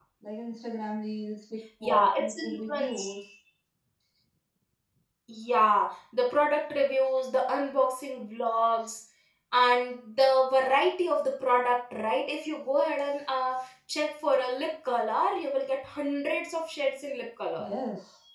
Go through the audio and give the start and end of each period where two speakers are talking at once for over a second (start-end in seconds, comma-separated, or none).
1.8-3.1